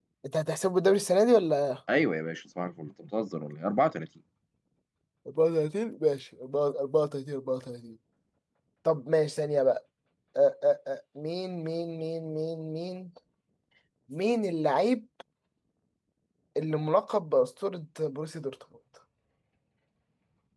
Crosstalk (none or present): none